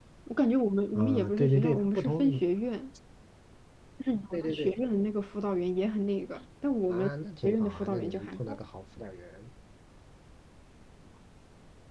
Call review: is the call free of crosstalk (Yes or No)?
No